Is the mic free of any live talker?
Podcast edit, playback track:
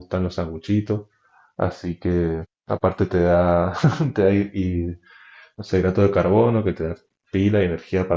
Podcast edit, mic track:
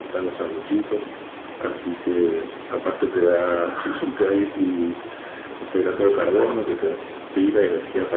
Yes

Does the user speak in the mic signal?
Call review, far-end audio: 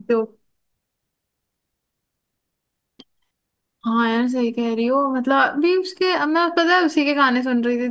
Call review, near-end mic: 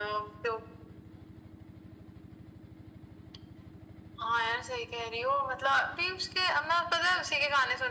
No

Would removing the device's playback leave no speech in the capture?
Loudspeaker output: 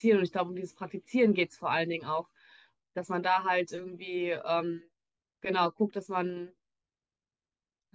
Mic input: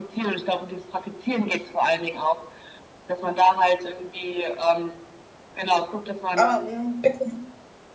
No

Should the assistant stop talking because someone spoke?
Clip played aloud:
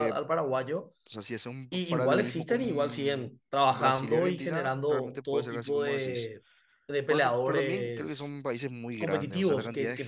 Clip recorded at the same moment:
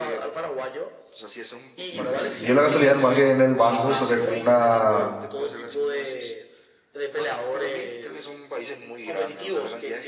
Yes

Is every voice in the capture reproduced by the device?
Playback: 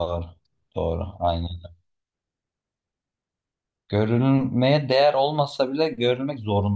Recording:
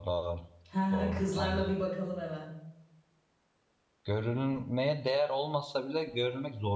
No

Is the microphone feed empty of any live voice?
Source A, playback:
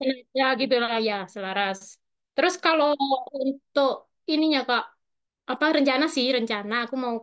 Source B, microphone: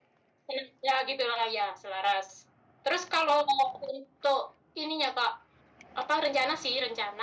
Yes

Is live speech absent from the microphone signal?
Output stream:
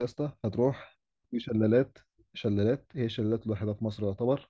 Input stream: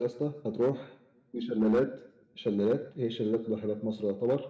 Yes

